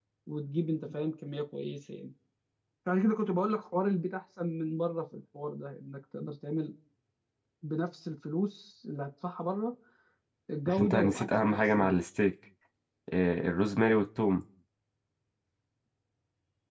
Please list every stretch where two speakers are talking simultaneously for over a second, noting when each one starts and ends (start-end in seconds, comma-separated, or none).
10.7-12.0